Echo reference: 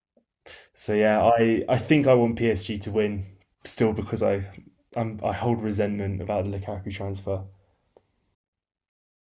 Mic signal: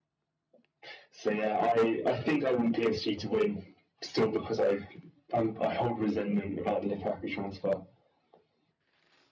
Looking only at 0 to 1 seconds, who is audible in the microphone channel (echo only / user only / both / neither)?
neither